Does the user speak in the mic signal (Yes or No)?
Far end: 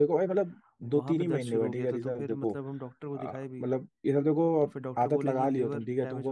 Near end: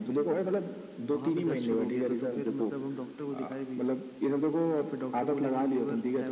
No